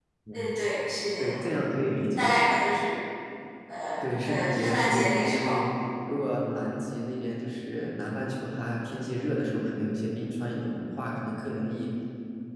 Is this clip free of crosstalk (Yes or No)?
No